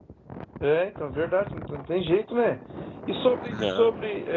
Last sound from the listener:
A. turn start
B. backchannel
B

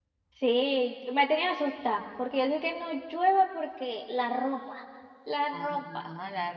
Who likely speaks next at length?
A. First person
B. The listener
B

